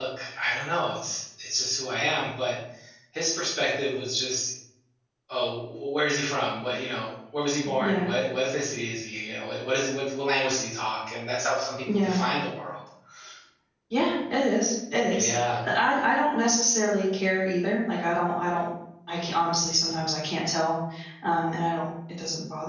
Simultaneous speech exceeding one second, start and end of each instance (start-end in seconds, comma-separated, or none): none